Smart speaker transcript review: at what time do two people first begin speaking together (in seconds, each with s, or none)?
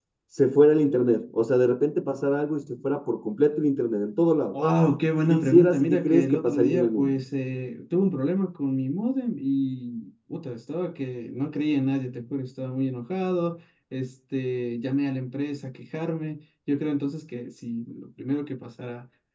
5.3 s